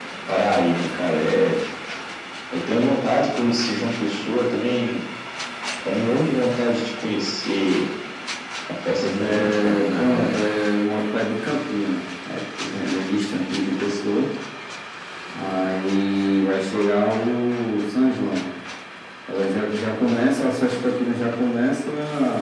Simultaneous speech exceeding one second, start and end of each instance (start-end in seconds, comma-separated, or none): 9.2-10.4